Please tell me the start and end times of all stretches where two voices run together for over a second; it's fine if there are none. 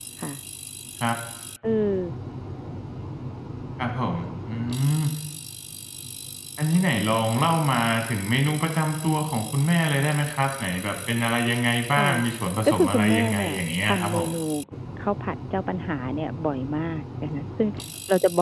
12.7-14.3

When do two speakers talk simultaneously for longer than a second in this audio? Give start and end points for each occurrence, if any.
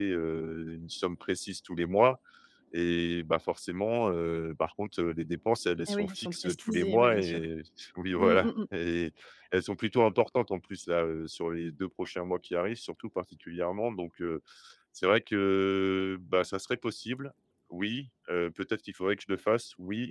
5.9-7.4

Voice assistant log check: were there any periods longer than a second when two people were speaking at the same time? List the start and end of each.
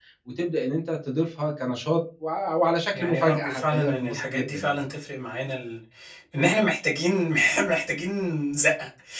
2.9-4.8

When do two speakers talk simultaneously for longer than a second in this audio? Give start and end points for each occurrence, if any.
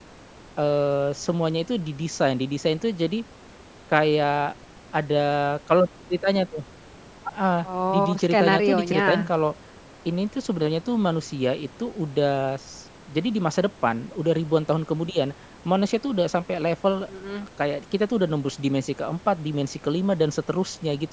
7.9-9.3

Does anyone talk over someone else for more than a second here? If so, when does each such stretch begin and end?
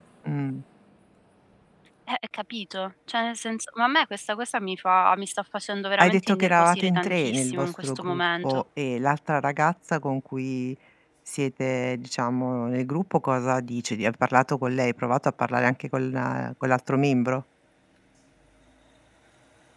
6.0-8.6

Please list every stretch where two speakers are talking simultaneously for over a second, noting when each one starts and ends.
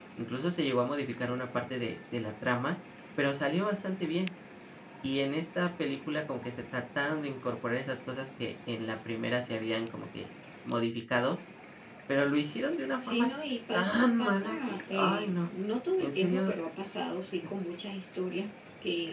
13.7-15.5

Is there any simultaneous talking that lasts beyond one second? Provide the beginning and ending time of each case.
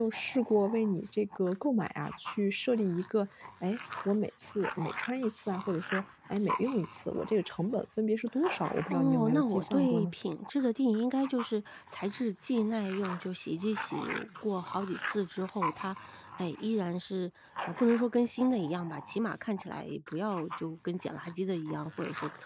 8.9-10.1

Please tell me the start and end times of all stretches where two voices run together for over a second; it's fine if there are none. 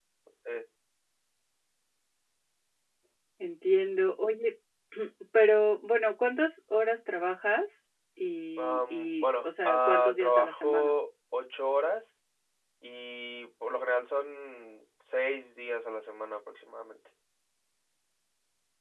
8.6-10.9

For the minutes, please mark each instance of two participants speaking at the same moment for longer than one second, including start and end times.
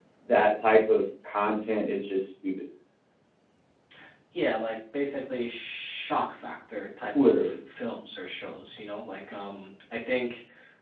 none

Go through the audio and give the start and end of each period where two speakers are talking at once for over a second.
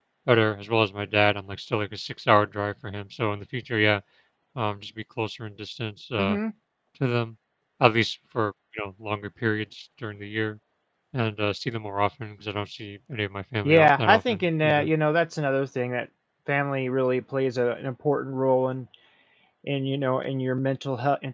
13.6-14.9

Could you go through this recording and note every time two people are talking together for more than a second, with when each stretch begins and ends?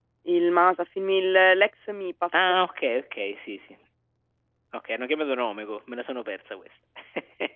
none

